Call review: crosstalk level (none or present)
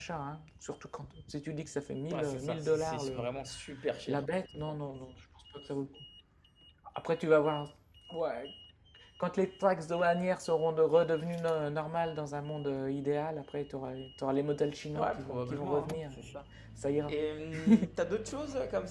present